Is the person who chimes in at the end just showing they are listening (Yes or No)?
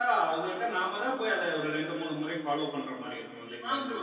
No